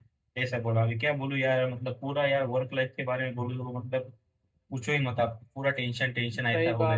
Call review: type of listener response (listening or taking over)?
taking over